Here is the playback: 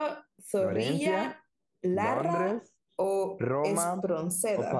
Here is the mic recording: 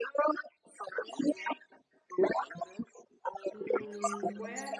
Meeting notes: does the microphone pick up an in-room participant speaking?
Yes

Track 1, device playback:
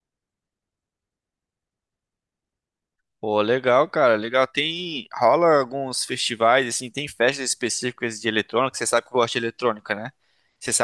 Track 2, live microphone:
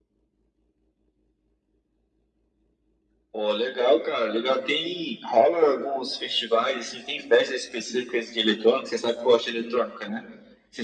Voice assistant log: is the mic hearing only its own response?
Yes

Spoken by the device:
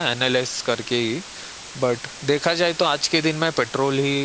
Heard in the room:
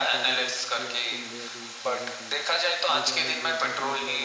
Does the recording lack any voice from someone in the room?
No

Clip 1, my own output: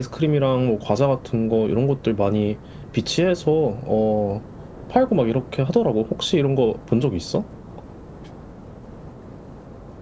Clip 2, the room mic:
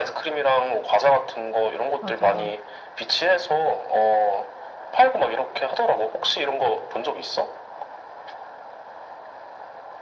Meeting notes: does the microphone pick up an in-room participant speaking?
Yes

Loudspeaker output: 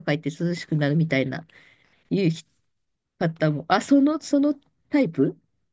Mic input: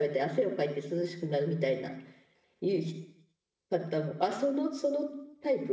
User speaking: No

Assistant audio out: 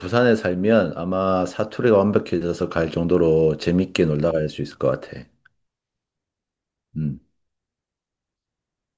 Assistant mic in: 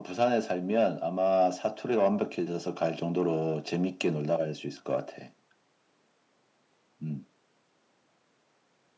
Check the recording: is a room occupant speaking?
No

